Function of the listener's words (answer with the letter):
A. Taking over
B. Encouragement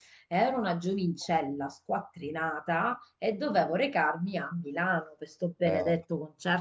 B